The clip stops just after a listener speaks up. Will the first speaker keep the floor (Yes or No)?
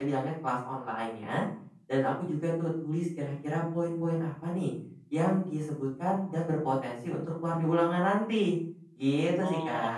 No